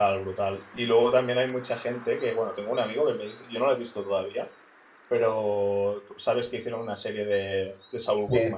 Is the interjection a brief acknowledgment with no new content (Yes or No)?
No